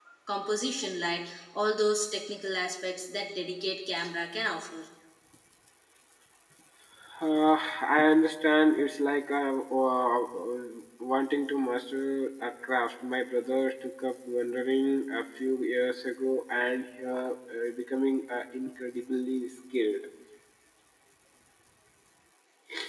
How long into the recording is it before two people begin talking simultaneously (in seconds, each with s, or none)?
none